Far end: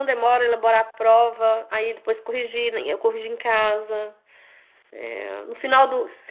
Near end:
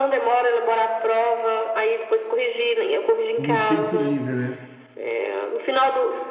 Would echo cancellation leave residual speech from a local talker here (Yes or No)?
Yes